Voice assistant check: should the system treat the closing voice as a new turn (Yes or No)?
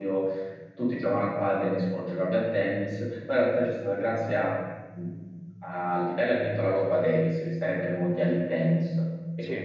No